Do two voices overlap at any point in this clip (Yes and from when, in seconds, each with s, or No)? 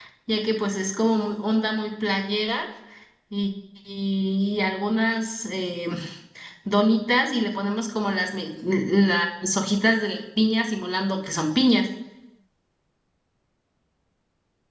No